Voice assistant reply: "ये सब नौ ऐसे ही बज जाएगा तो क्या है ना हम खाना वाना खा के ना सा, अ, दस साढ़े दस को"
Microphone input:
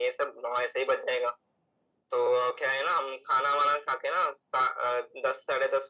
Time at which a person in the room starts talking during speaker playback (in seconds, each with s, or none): none